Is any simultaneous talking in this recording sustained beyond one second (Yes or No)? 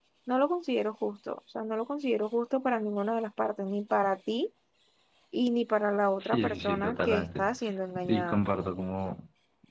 Yes